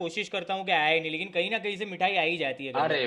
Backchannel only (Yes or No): No